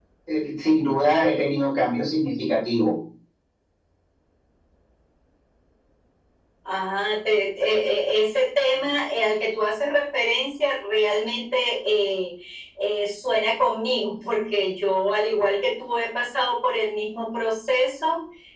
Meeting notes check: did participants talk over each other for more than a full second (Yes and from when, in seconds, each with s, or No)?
No